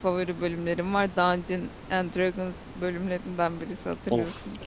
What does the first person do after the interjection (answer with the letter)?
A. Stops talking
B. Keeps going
A